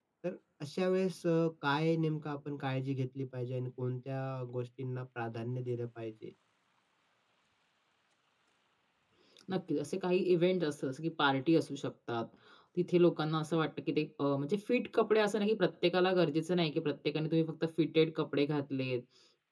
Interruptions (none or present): none